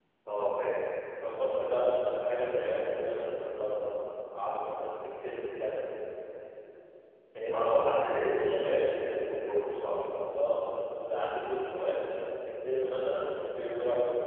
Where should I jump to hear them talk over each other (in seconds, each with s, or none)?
7.5 s